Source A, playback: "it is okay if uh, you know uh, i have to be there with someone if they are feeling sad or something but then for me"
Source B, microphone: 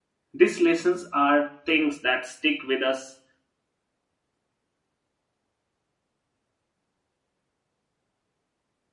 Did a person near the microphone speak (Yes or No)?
Yes